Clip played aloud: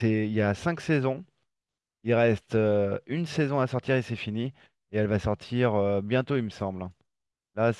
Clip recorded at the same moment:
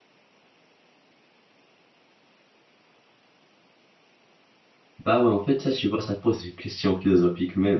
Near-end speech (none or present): present